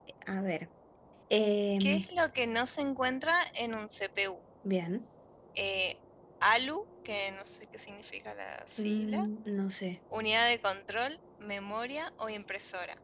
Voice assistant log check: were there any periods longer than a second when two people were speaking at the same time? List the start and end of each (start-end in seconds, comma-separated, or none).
none